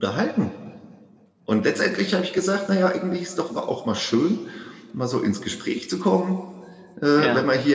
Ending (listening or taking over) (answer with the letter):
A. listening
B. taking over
A